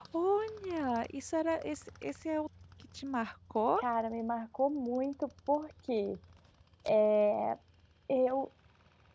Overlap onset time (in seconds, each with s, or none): none